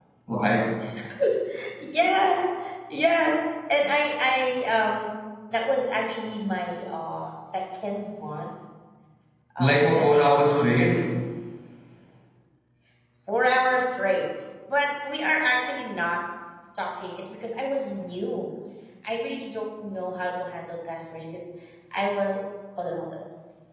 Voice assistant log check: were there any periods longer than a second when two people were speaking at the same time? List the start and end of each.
9.6-10.9

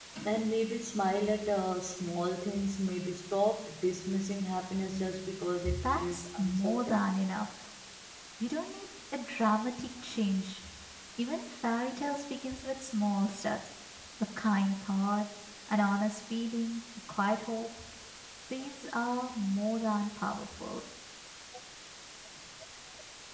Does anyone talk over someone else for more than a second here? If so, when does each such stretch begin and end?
5.8-7.1

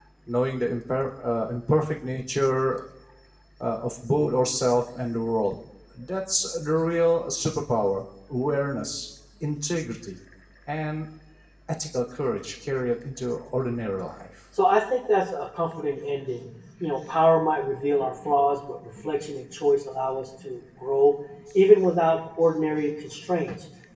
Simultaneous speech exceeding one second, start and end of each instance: none

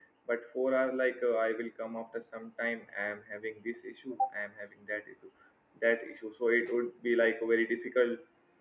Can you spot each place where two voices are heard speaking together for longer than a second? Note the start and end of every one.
none

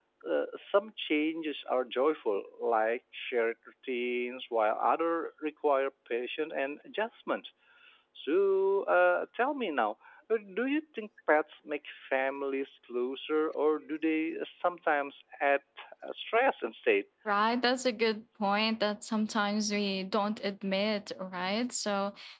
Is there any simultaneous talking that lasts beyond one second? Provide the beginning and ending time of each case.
none

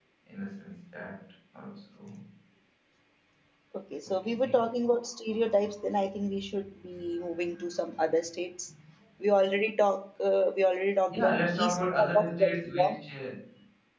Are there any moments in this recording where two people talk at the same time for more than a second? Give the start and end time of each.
11.1-13.0

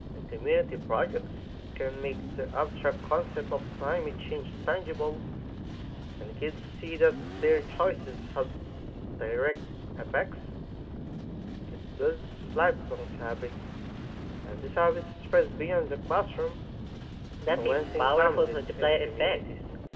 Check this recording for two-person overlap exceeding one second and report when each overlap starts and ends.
17.4-19.4

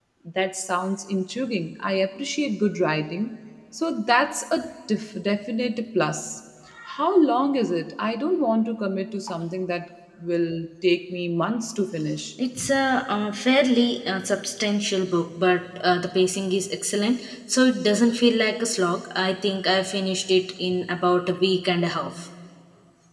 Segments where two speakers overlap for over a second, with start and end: none

